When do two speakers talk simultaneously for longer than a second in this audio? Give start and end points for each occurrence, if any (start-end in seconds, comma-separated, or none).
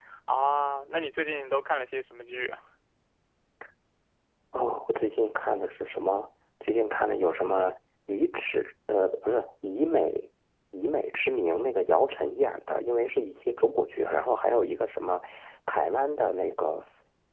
none